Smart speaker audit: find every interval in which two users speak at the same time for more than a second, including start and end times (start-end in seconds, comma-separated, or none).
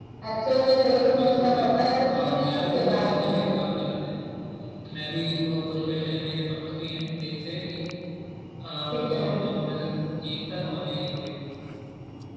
1.1-3.2